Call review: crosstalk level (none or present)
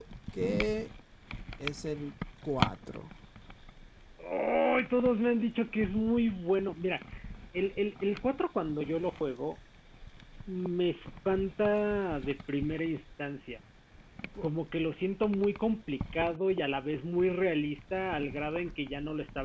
none